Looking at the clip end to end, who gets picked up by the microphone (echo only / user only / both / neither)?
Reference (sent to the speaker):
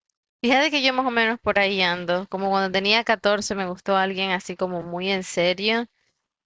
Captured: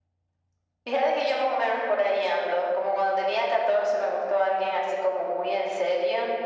echo only